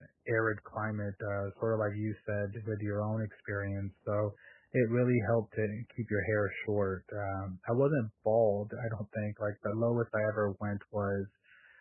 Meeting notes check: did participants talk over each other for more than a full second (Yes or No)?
No